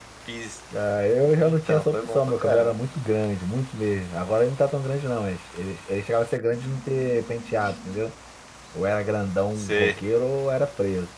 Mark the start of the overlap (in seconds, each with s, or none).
1.4 s